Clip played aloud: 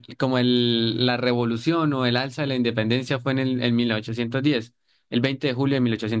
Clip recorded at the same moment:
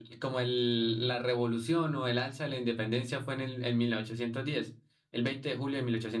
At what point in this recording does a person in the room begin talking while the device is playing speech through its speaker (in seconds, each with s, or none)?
none